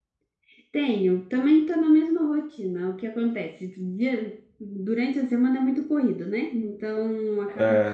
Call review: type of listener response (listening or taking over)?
listening